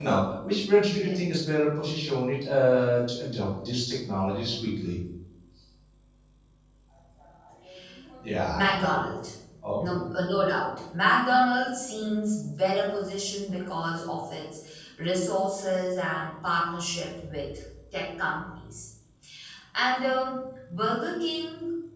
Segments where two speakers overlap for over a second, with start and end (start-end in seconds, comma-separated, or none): none